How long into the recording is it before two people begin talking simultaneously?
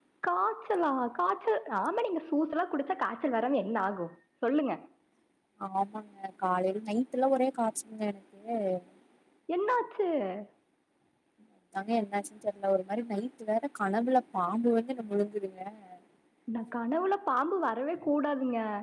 none

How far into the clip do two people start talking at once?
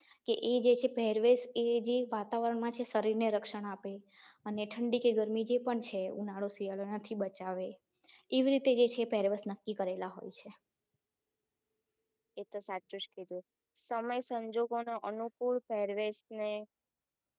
none

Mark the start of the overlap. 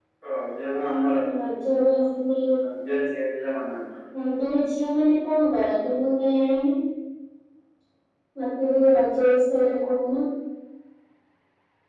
none

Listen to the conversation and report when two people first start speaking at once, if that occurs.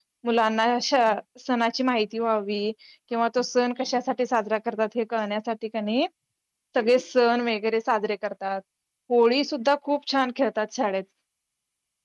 none

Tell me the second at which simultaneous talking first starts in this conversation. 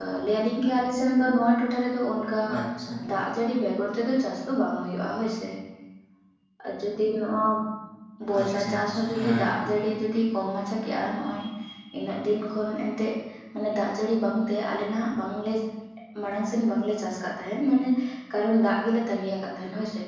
8.4 s

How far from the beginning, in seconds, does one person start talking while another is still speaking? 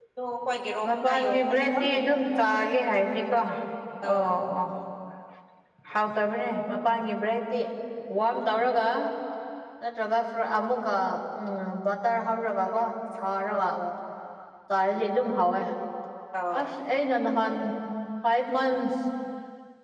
0.8 s

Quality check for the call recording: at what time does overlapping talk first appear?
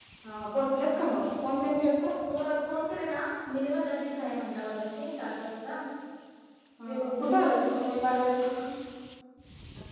6.8 s

